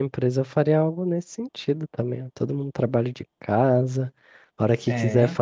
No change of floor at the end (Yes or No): Yes